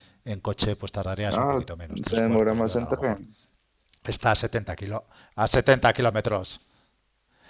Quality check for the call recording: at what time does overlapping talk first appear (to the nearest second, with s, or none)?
1 s